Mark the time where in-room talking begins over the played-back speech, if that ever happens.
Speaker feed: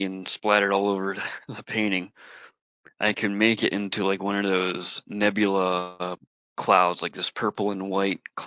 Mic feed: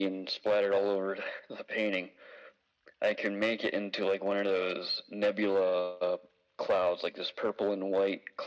none

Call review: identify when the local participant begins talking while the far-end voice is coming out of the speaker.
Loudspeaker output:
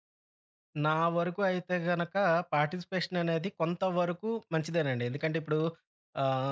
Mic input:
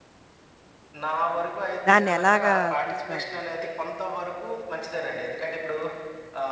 1.9 s

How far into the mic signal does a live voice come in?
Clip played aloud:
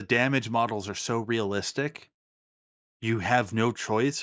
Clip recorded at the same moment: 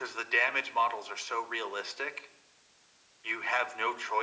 none

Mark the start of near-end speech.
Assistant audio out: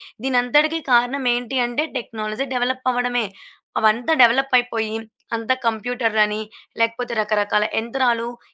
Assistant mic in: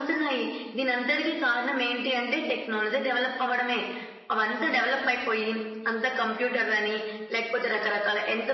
none

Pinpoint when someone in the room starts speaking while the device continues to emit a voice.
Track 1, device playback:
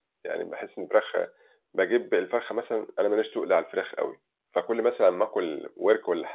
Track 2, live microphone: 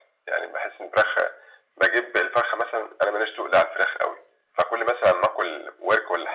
none

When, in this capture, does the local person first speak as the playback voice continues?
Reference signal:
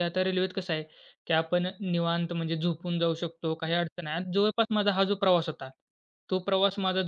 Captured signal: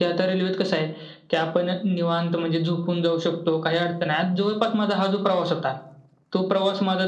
none

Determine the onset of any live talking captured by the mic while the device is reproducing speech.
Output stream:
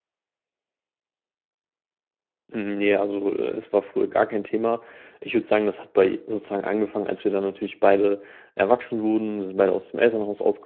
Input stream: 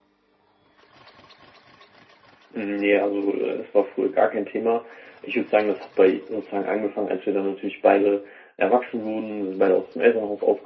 none

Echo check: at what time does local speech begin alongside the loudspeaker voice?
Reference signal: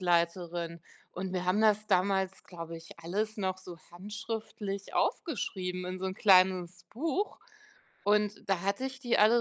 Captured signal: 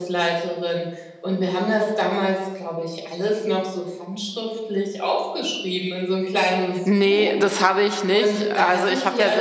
6.8 s

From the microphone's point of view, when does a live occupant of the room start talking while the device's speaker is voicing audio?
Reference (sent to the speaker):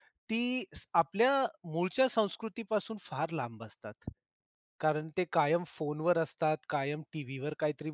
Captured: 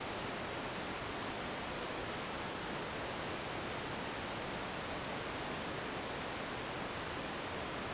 none

